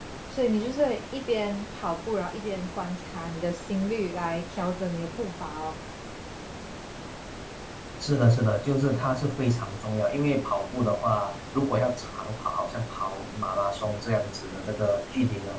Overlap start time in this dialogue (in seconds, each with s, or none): none